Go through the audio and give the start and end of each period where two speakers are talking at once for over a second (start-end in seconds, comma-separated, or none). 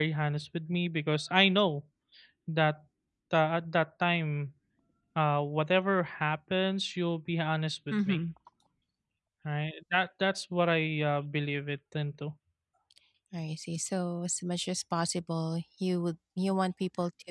none